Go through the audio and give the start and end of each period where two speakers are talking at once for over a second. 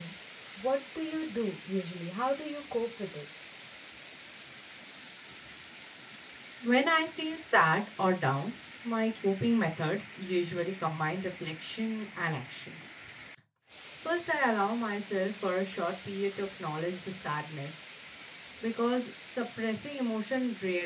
none

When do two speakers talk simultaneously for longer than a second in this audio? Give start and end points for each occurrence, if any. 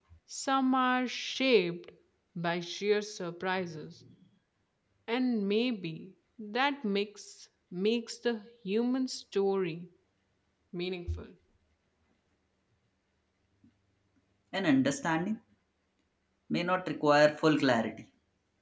none

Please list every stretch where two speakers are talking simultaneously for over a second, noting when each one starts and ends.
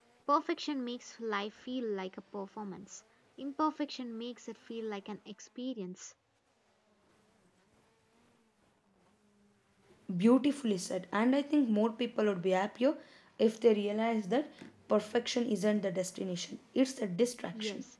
none

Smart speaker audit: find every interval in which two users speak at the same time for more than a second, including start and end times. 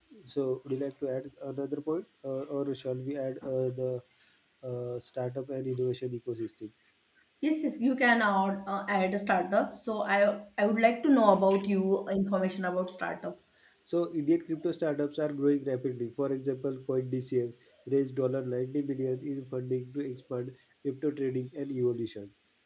none

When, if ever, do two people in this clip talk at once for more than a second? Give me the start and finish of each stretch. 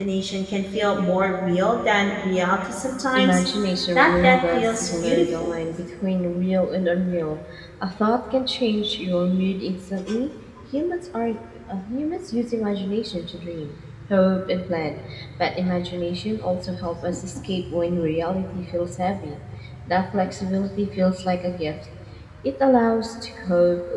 4.0-5.5

